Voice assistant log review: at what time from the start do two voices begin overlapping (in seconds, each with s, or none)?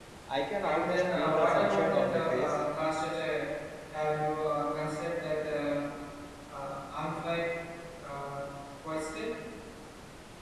0.6 s